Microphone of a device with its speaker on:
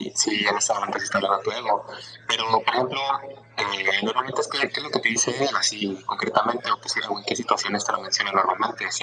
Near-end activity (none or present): none